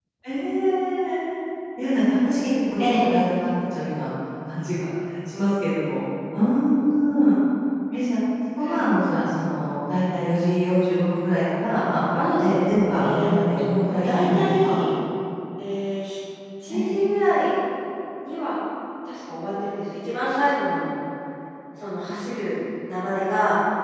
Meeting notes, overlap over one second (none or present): present